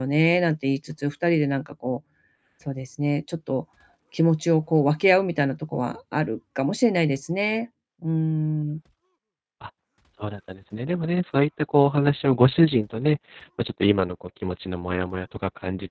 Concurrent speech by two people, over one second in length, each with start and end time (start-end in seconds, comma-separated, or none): none